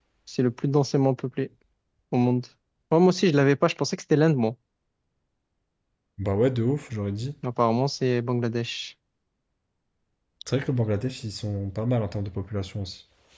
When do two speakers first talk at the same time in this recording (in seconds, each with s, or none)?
none